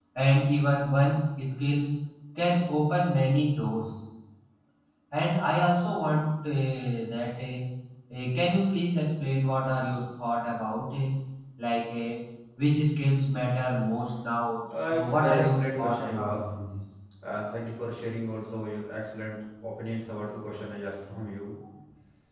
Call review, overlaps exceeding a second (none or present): present